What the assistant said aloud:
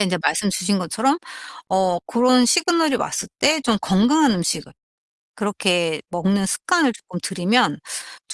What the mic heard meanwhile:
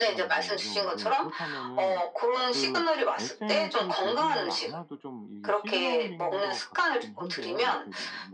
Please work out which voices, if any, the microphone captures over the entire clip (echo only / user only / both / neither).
both